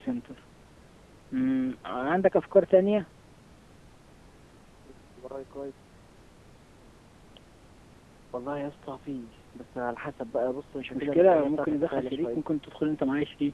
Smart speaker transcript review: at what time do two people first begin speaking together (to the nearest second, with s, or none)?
11 s